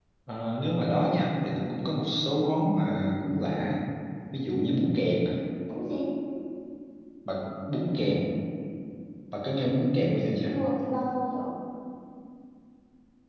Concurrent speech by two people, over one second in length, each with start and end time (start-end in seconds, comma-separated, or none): none